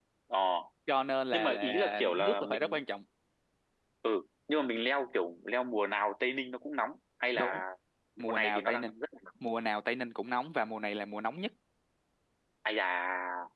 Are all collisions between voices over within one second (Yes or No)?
No